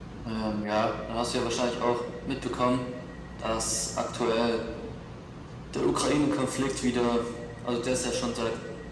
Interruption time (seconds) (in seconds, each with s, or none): none